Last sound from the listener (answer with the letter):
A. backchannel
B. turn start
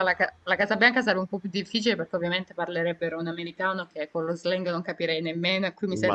B